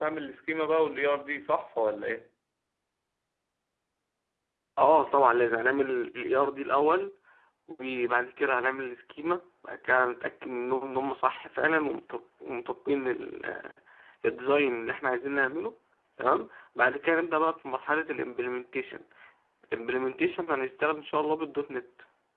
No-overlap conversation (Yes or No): Yes